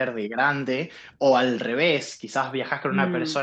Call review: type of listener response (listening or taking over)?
listening